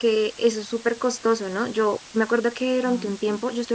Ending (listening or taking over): listening